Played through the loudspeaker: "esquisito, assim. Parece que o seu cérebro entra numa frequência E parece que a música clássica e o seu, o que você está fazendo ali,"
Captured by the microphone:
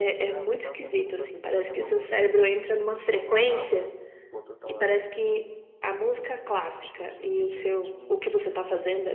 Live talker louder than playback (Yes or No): No